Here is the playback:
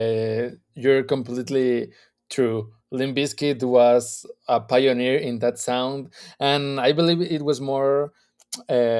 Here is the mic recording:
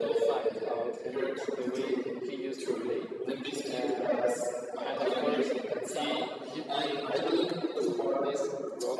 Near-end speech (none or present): present